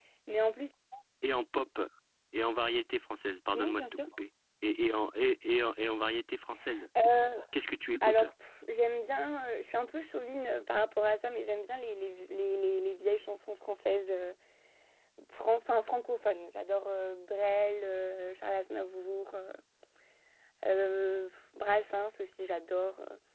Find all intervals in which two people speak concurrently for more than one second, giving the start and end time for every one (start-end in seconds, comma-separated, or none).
none